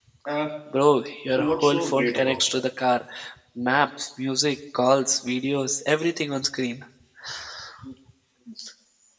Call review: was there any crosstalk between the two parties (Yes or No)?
Yes